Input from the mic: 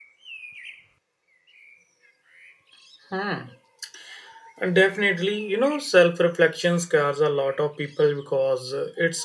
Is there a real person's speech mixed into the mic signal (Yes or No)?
Yes